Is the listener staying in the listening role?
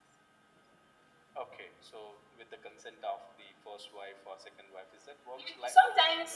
No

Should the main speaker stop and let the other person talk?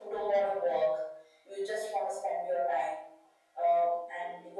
No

